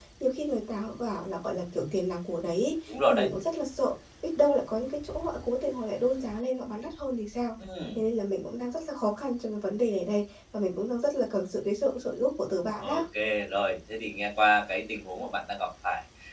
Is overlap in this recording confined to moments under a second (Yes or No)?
Yes